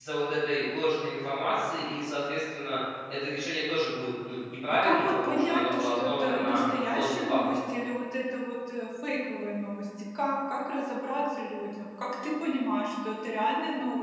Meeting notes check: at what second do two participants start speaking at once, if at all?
4.7 s

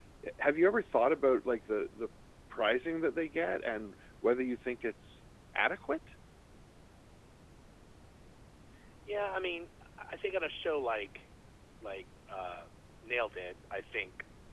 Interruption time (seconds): none

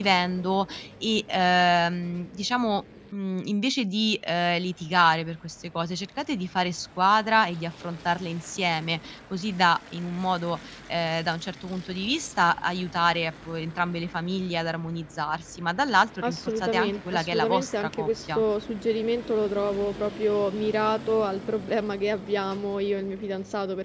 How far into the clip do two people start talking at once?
16.2 s

